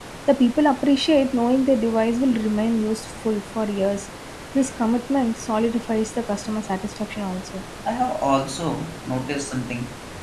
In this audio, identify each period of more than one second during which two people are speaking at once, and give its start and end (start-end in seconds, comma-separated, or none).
none